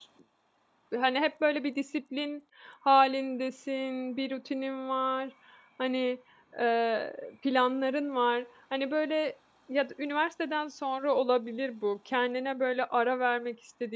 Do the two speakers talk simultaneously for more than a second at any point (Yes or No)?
No